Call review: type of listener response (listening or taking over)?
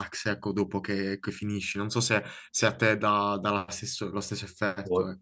taking over